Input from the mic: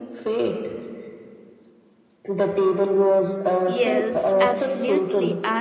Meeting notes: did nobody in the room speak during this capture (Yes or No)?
No